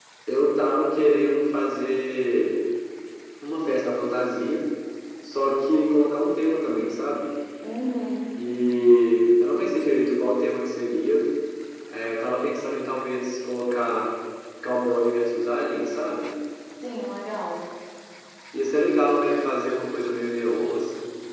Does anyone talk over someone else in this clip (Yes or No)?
No